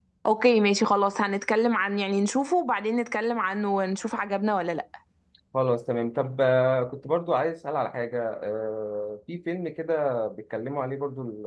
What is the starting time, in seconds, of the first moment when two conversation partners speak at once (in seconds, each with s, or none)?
none